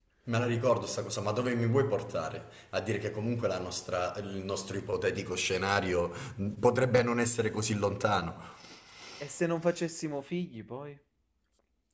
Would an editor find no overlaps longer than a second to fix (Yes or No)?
Yes